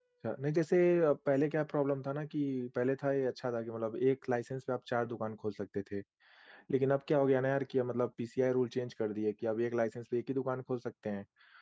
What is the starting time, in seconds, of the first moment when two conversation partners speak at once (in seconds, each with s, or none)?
none